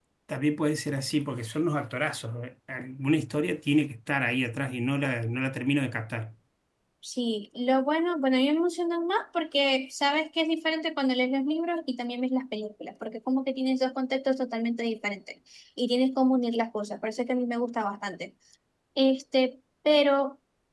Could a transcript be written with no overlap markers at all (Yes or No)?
Yes